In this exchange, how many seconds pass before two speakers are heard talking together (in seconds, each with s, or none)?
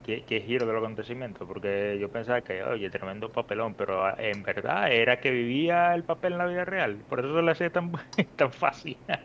none